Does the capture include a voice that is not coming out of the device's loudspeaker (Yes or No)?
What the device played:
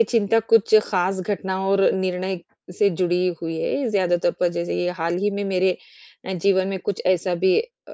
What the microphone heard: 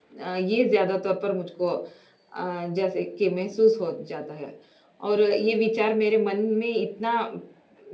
Yes